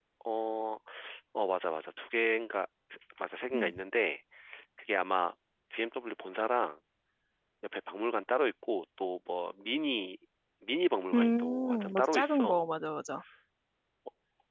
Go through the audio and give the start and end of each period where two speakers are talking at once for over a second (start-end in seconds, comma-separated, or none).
11.1-12.7